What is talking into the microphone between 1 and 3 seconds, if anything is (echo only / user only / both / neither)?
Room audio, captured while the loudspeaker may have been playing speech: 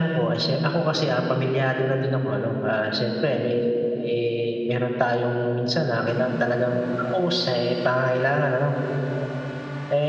echo only